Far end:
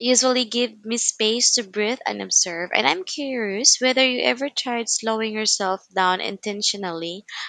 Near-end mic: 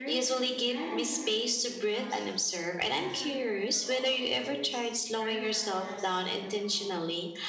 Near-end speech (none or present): present